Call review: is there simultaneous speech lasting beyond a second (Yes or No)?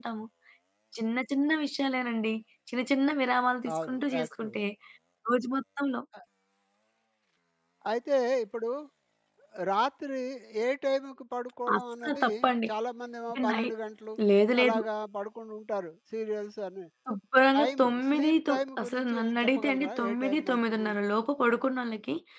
Yes